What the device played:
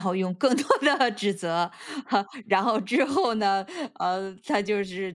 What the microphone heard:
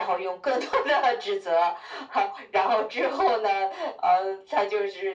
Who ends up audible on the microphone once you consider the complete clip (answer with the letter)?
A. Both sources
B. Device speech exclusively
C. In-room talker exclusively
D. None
B